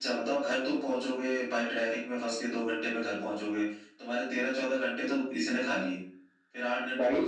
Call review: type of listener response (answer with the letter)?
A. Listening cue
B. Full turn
A